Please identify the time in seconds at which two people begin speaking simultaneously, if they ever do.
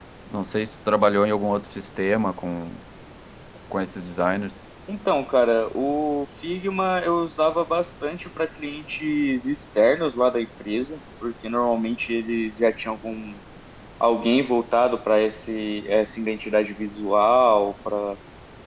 none

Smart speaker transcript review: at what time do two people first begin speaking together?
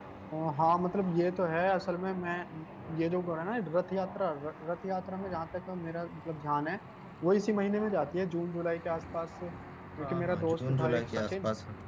10 s

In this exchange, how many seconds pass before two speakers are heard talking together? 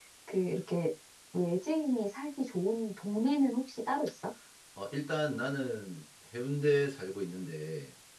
none

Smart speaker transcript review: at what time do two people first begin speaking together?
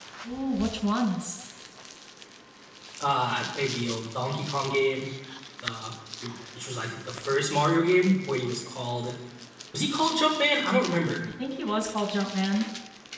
none

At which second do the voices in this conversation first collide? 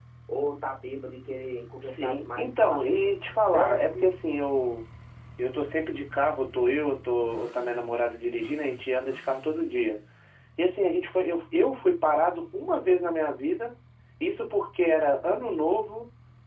2 s

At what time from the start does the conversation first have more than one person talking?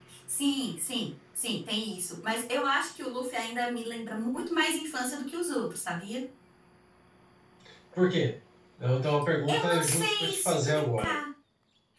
9 s

